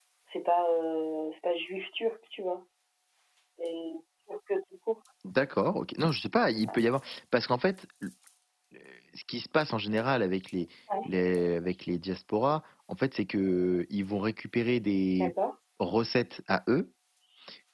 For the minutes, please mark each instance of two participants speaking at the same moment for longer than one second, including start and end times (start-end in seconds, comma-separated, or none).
none